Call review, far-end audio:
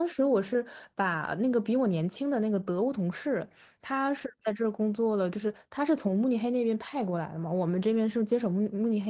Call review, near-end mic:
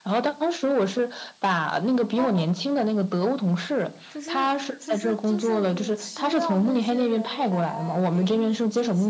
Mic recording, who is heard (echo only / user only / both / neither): both